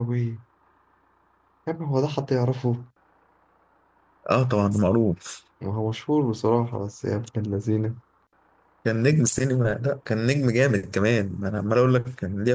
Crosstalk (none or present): none